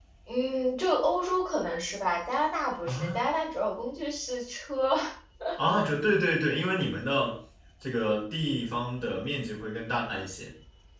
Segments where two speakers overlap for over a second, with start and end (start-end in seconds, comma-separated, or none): none